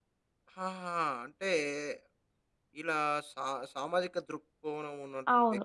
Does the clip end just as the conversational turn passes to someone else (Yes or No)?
Yes